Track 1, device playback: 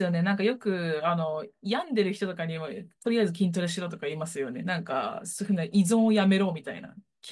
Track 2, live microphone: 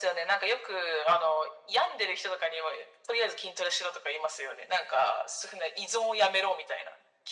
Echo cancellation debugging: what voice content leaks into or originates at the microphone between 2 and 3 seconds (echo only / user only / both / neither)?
echo only